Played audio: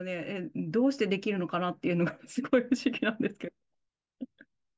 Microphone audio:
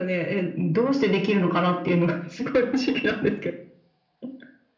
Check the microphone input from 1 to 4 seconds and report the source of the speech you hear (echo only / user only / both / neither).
echo only